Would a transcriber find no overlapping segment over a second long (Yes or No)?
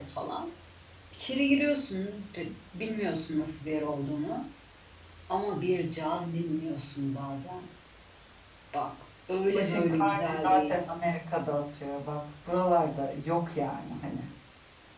No